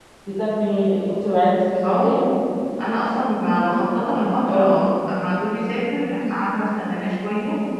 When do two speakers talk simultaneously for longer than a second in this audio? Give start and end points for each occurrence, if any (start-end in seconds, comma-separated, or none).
none